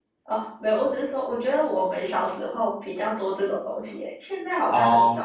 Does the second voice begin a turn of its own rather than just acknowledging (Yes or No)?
Yes